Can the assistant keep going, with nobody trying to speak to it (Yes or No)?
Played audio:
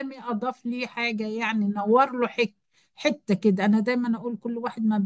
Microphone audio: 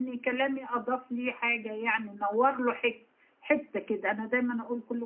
Yes